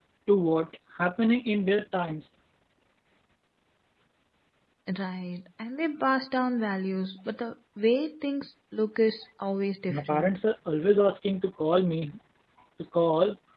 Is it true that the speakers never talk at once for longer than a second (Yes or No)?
Yes